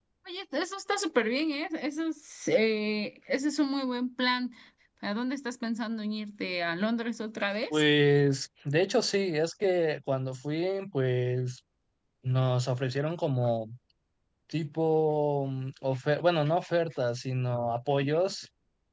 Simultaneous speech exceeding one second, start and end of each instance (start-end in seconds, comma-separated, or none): none